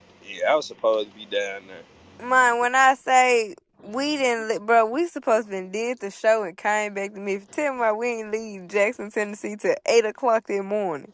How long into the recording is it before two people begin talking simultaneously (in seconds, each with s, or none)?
none